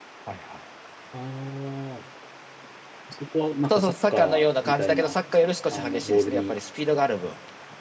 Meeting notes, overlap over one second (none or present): present